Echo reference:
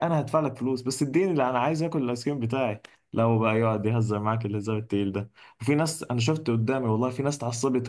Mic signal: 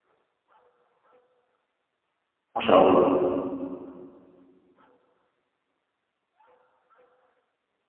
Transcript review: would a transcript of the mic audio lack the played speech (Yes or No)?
Yes